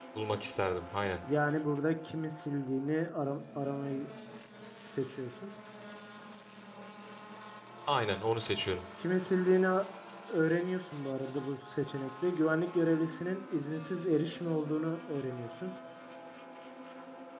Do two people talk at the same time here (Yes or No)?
No